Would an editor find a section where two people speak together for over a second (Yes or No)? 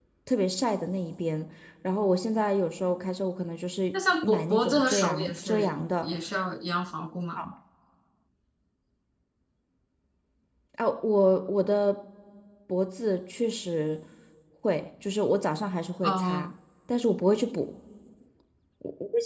Yes